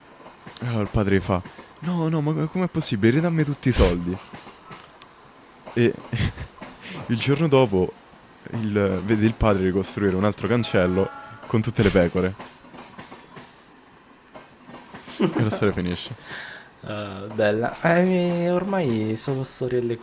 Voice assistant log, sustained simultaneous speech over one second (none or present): none